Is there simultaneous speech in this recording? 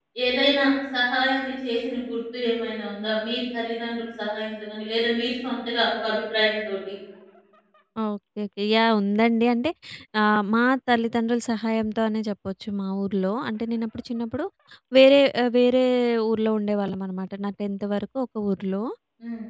No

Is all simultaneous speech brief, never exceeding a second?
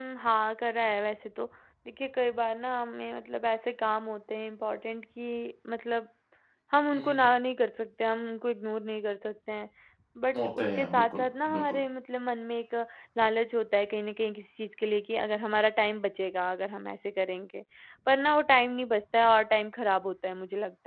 No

